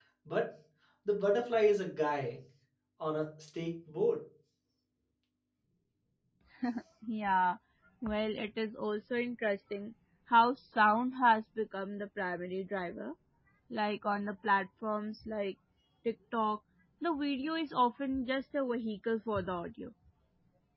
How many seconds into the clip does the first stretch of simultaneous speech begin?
none

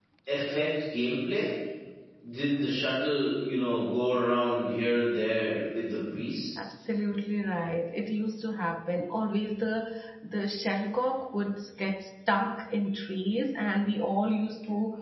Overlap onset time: none

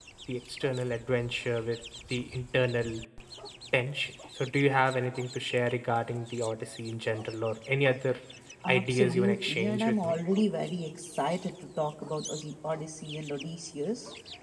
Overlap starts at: 8.7 s

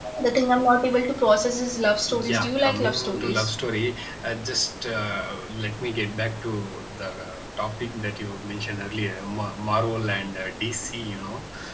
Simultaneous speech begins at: 2.1 s

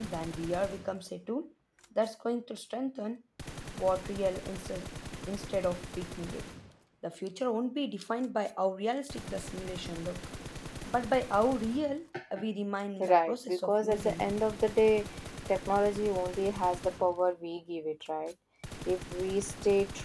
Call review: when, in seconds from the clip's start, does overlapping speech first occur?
13.0 s

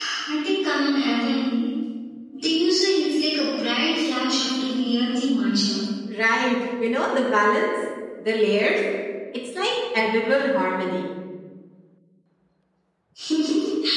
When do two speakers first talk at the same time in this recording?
none

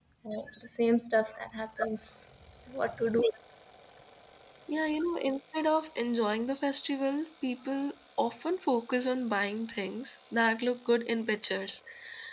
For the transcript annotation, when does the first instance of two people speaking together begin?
none

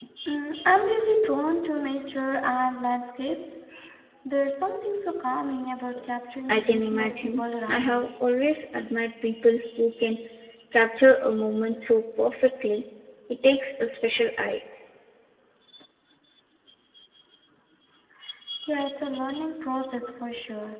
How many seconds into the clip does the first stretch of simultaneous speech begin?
6.5 s

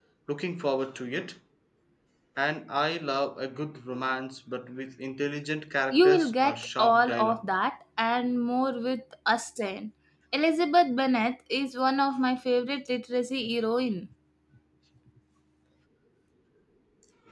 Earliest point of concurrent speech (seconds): 5.9 s

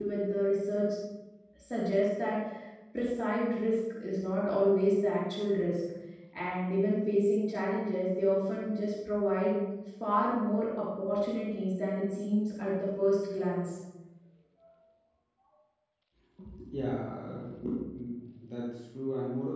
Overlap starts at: none

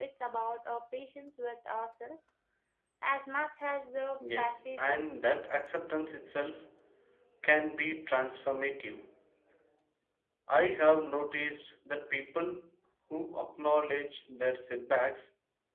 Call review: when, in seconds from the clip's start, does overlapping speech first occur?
4.2 s

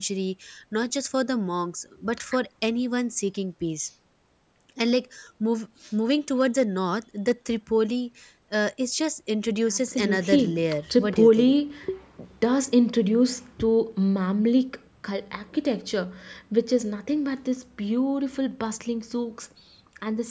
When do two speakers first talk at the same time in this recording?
9.7 s

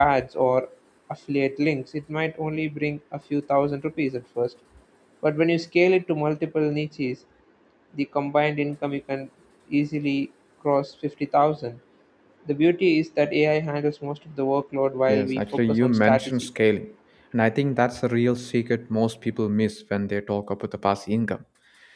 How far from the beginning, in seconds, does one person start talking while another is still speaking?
15.1 s

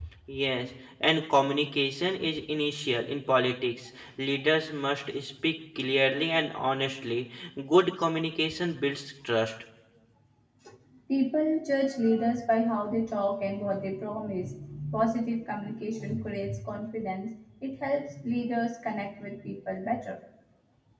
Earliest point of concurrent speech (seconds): none

